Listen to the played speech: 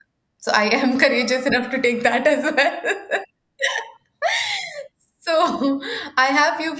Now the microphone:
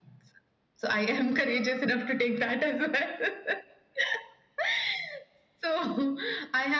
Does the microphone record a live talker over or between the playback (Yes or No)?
No